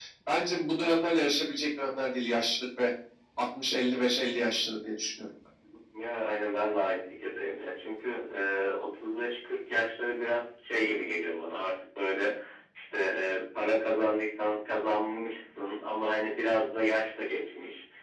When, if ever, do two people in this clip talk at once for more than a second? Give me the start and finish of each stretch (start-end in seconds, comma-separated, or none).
none